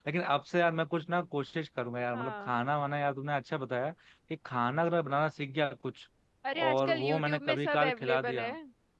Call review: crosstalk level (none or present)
present